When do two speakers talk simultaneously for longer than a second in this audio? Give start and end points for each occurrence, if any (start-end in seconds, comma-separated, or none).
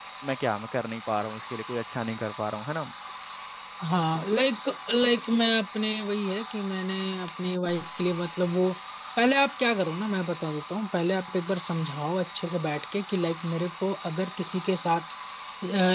none